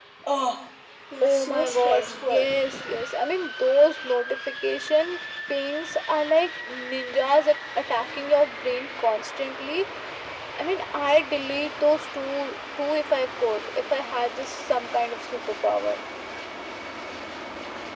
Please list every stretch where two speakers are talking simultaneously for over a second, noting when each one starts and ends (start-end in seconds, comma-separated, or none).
1.2-2.5